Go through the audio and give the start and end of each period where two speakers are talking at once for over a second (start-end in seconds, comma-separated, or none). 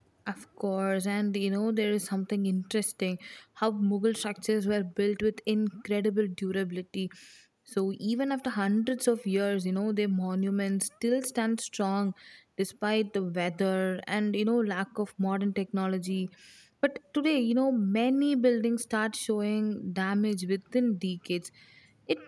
none